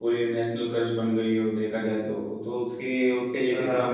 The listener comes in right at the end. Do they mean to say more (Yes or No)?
No